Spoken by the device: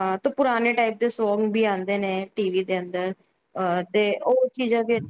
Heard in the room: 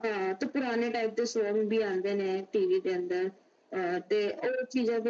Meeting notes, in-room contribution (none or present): none